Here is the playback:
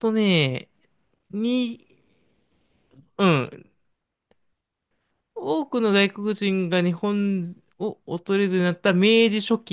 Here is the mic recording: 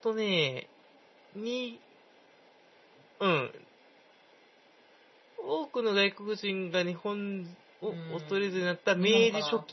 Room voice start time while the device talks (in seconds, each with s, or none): 7.8 s